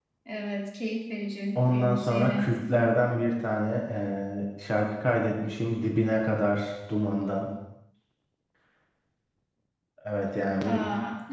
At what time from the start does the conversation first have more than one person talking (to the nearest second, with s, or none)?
2 s